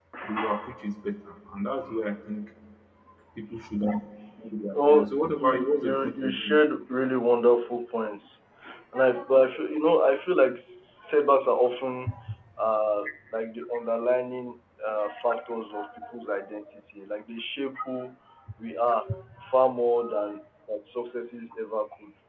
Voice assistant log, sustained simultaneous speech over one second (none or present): present